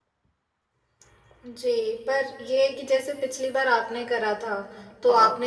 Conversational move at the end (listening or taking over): listening